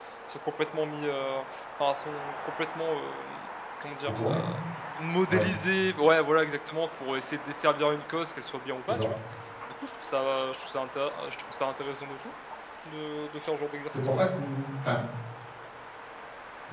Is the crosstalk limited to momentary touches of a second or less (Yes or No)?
Yes